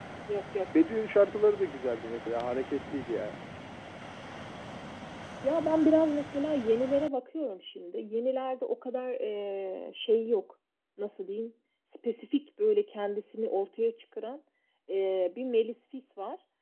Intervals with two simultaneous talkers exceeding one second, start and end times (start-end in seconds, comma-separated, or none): none